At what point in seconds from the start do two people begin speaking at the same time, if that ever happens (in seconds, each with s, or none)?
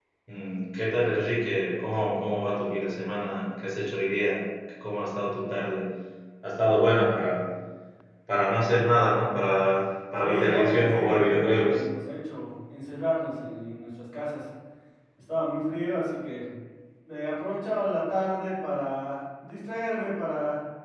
10.2 s